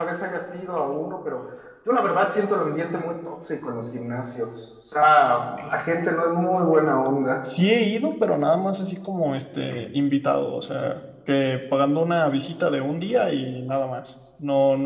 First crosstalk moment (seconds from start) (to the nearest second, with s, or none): none